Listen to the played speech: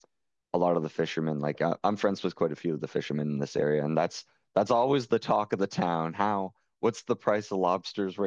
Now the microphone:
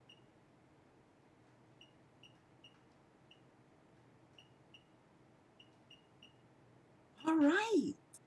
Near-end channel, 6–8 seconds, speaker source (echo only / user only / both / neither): user only